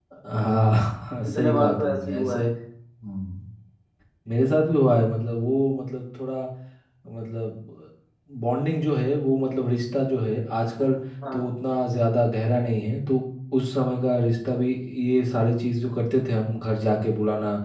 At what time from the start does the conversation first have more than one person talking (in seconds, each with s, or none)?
1.2 s